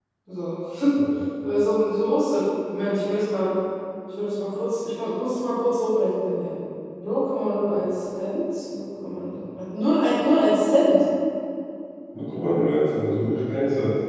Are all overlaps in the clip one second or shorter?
Yes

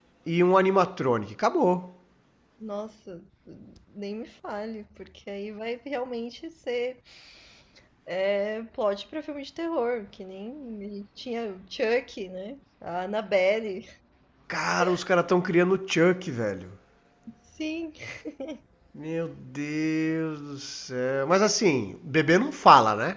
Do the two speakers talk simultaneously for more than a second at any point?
No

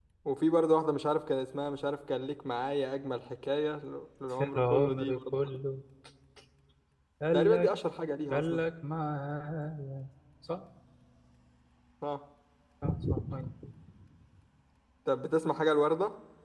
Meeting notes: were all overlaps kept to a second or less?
No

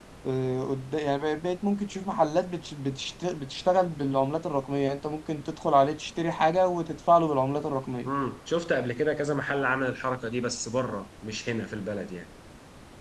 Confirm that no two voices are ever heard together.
Yes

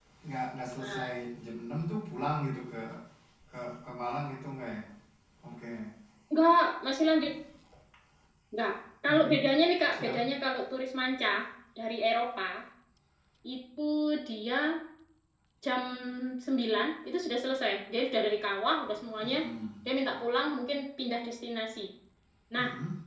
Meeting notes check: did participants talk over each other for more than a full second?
No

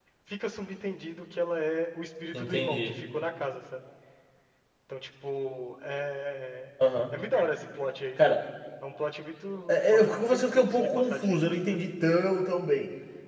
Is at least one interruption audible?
Yes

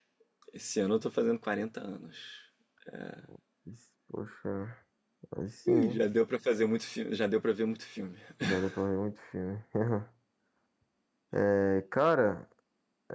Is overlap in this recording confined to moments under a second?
Yes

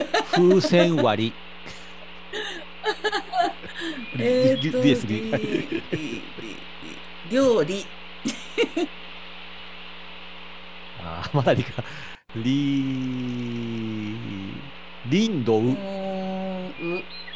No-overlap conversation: No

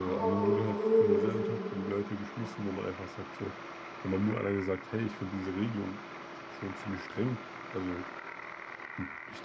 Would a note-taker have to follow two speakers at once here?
Yes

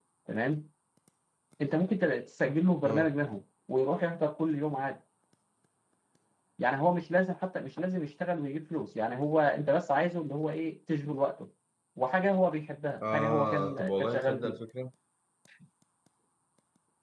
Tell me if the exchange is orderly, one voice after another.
No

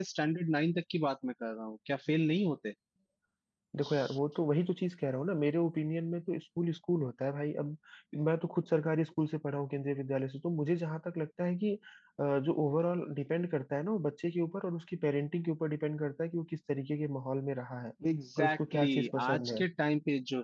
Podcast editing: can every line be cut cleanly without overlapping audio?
No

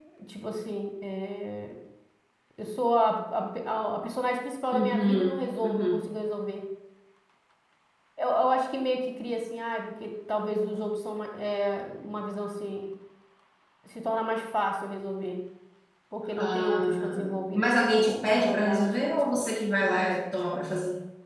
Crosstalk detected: Yes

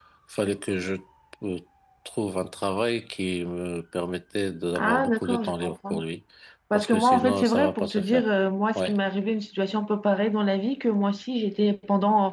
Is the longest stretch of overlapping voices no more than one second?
No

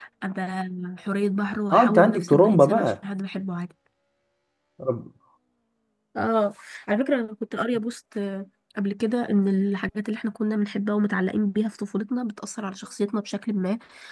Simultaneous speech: Yes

